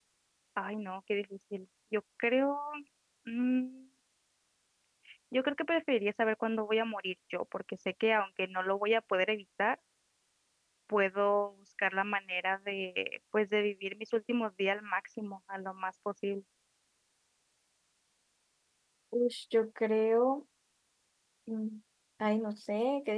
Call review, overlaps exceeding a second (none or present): none